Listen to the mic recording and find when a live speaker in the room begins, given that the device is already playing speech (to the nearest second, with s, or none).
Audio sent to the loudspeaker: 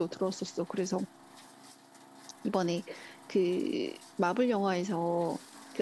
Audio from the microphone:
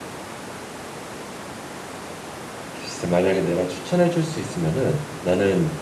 3 s